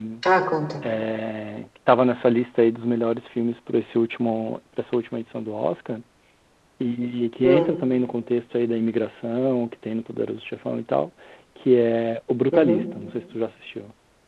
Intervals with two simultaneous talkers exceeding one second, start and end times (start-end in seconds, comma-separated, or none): none